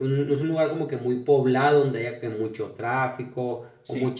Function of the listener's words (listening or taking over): listening